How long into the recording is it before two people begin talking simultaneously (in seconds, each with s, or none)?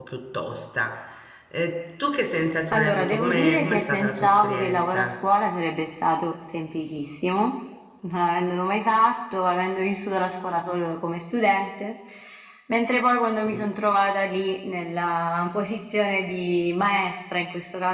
2.7 s